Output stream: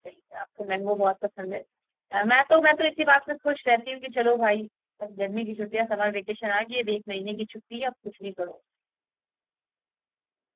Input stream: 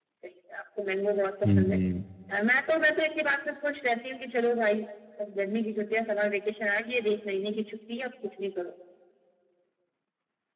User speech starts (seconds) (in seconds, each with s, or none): 1.4 s